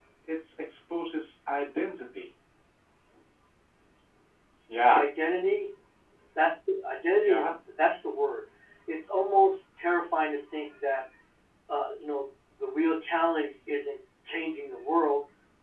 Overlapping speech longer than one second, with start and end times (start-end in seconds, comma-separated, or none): none